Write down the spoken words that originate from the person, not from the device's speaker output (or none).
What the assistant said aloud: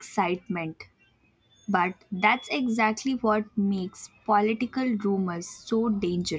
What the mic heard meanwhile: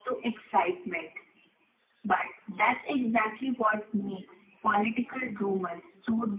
none